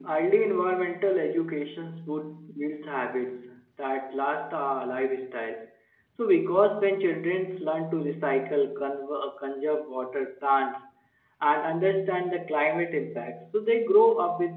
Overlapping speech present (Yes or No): No